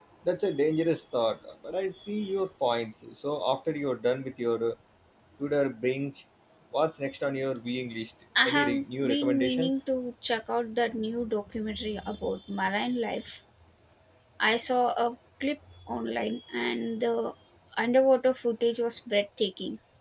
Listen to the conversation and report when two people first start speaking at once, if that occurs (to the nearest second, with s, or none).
8 s